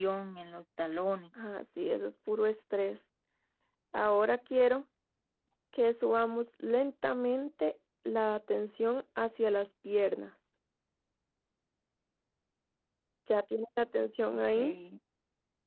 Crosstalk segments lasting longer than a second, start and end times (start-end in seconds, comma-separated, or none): none